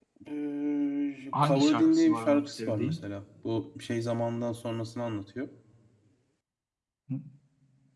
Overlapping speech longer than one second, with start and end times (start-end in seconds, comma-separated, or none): 1.4-3.0